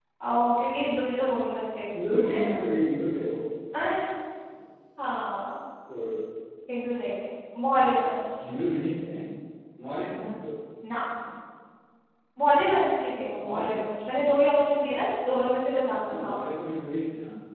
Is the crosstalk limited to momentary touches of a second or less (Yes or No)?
Yes